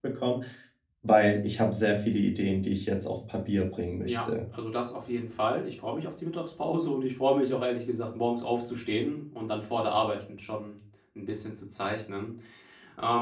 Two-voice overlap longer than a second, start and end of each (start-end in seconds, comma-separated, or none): none